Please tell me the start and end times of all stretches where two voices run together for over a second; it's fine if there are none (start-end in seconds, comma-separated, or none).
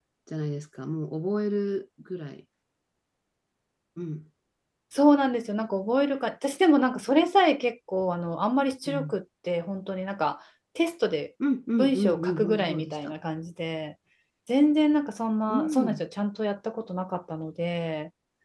11.8-13.1